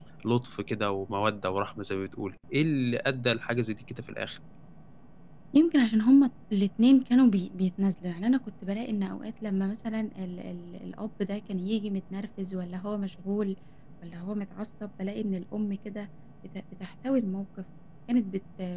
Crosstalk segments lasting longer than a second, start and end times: none

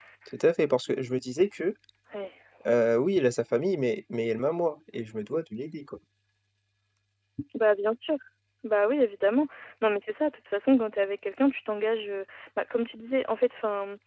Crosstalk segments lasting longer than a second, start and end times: none

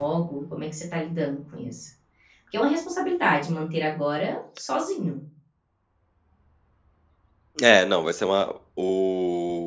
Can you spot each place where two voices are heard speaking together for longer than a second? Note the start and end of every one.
none

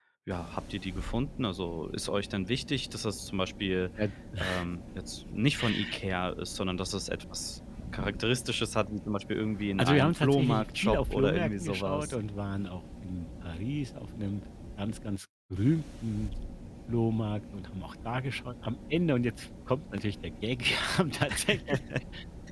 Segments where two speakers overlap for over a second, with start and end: 9.8-12.1

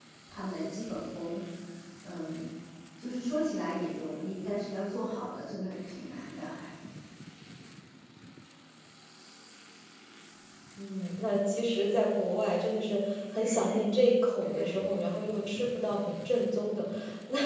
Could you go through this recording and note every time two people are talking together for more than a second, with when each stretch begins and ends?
none

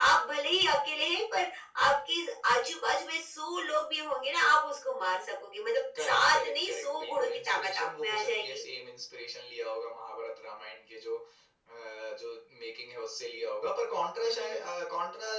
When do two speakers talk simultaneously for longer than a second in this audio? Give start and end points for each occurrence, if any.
6.0-8.6

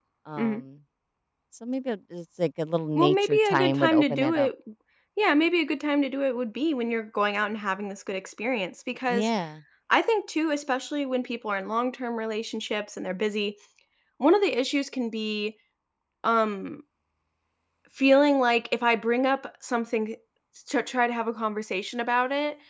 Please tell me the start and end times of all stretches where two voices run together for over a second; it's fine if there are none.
3.0-4.5

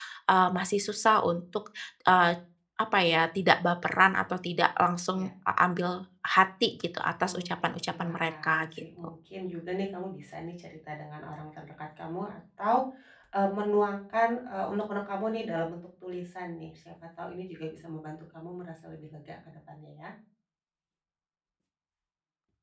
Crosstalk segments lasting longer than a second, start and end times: 7.4-8.8

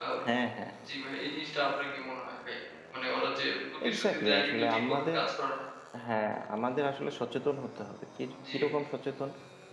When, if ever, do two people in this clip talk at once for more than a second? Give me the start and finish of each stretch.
3.9-5.2

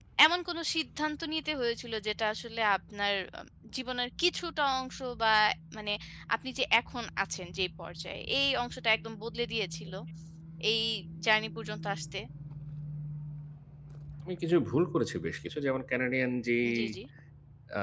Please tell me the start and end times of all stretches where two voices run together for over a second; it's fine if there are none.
none

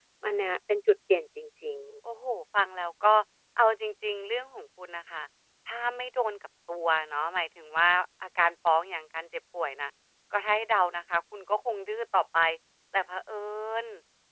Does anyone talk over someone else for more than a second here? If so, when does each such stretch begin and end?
none

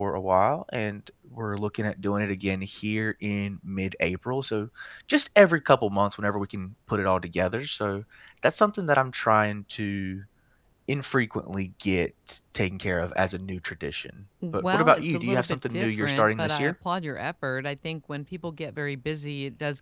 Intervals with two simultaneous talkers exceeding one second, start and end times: 14.5-16.7

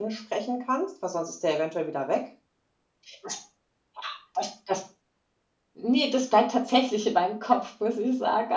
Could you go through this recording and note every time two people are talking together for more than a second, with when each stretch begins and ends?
none

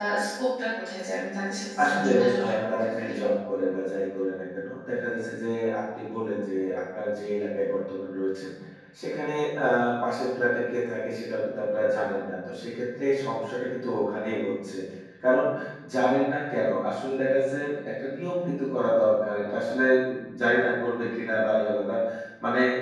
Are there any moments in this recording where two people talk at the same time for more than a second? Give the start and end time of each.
1.8-3.1

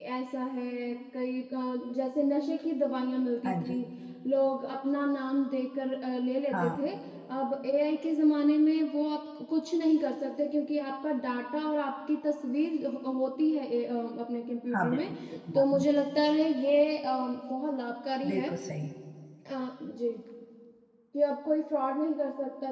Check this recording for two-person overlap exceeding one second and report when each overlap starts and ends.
none

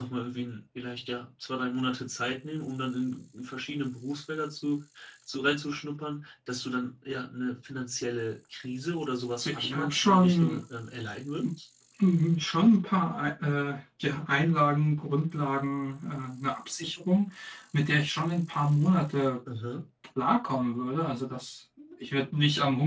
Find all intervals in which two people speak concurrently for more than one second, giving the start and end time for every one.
9.3-10.6

